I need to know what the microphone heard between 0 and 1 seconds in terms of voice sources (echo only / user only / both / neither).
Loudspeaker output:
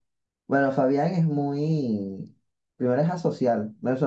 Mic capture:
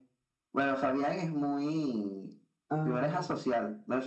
echo only